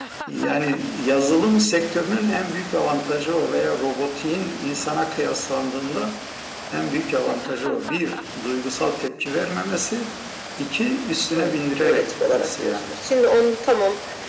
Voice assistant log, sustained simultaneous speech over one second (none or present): present